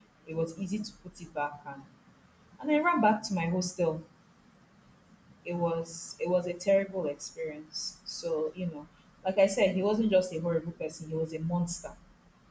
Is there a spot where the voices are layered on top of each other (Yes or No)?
No